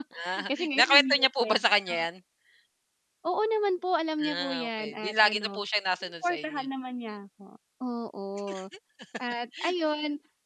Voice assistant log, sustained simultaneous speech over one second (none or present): present